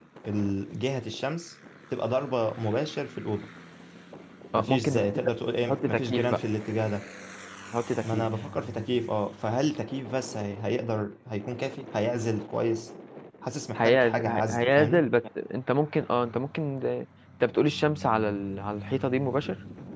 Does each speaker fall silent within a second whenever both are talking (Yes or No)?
No